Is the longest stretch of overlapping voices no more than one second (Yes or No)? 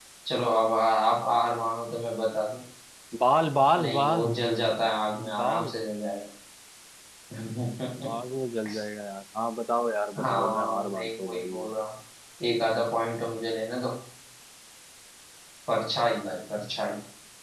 No